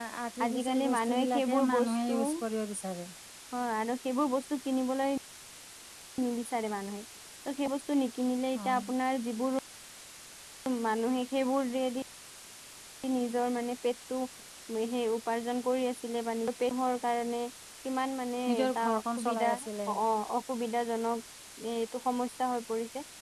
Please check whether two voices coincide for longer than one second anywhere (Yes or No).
Yes